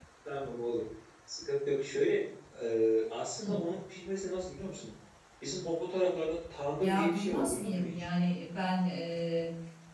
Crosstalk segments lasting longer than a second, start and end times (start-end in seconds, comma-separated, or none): 6.8-8.0